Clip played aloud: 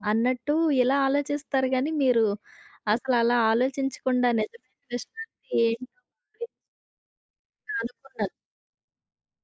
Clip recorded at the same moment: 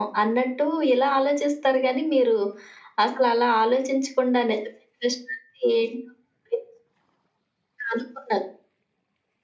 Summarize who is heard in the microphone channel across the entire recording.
echo only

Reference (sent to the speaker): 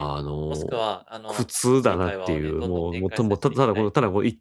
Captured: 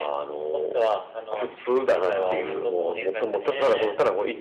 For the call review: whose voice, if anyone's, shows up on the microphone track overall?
both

